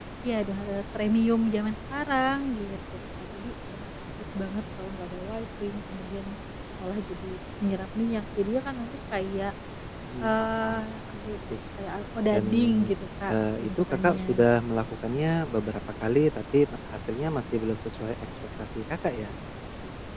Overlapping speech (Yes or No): Yes